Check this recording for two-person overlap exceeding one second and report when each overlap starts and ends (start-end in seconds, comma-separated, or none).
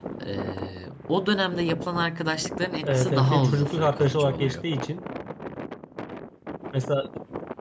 2.8-4.6